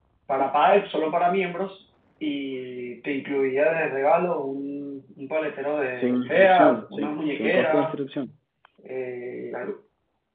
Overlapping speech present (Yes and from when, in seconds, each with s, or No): Yes, from 5.9 s